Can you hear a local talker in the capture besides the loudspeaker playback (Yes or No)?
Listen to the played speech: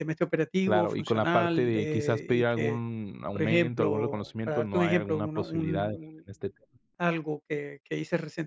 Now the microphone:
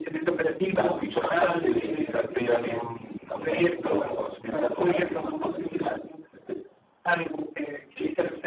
Yes